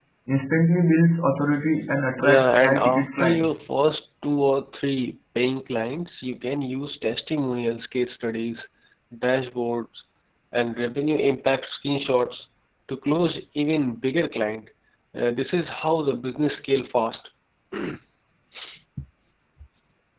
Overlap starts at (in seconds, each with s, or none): 2.2 s